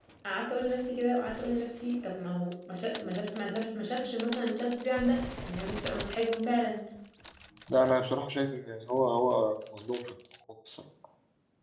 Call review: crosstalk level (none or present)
none